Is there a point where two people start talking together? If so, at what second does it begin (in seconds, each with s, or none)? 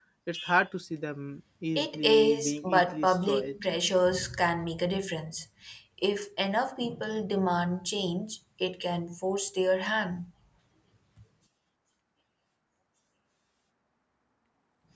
1.8 s